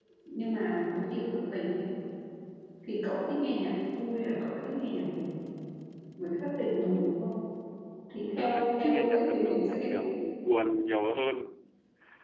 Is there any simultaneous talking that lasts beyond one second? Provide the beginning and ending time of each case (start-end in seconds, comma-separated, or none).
8.4-9.9